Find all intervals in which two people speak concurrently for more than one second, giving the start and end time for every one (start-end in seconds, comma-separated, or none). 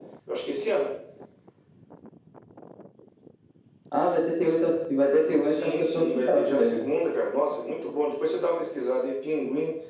5.5-6.8